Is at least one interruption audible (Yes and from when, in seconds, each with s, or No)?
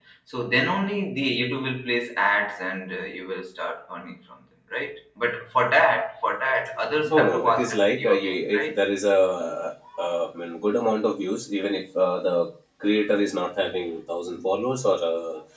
Yes, from 7.1 s